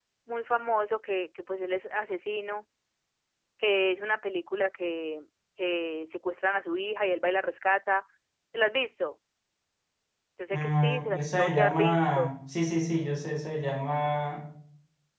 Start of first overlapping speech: 10.5 s

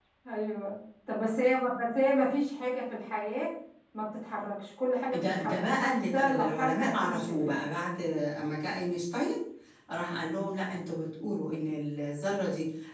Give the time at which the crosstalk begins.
5.1 s

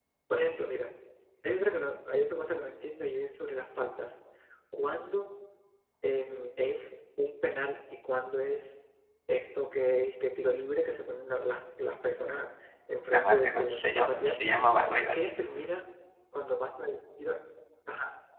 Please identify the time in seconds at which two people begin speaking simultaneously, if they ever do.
13.1 s

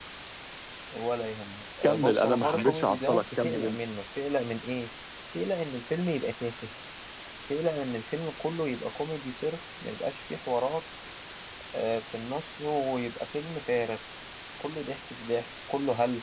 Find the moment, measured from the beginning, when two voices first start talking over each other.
1.8 s

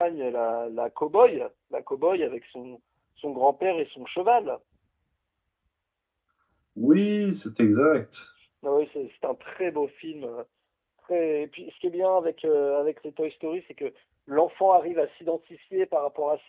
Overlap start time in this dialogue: none

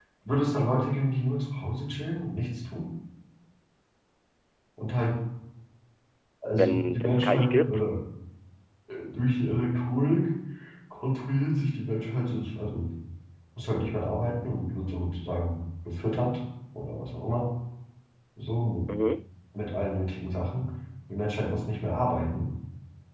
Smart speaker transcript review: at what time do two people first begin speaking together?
6.6 s

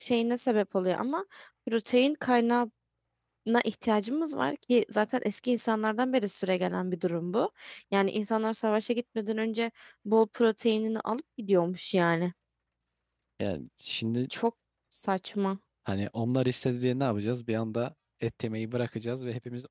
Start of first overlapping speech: none

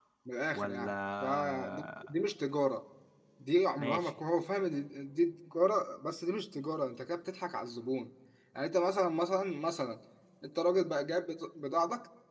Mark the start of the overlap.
0.5 s

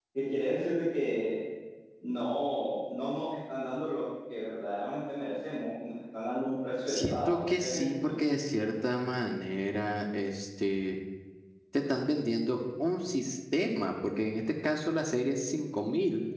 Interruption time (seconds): 6.9 s

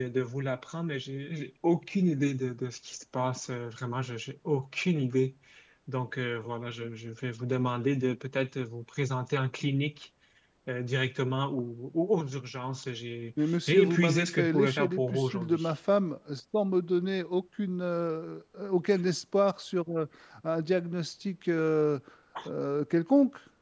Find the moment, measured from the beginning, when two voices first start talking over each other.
13.4 s

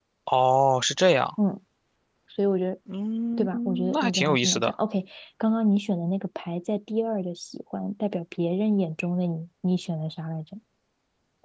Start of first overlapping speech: 3.4 s

